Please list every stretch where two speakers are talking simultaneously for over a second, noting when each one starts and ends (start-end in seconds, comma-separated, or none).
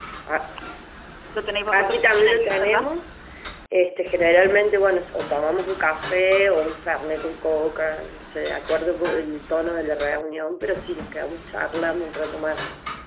1.7-2.9